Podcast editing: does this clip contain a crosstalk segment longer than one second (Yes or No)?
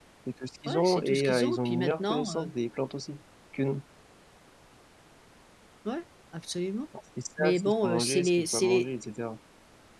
Yes